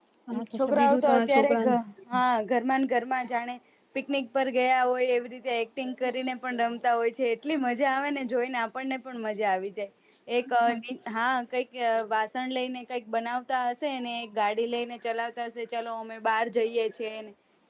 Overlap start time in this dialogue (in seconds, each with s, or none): 0.6 s